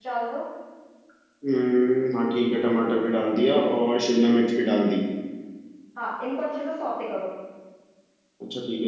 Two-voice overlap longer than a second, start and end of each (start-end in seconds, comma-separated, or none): none